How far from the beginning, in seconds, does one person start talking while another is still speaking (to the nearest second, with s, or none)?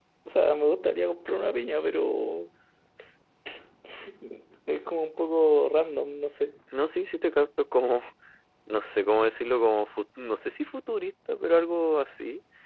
none